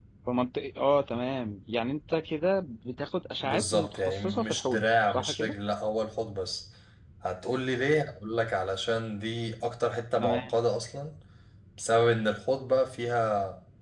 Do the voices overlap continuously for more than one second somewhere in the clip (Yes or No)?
Yes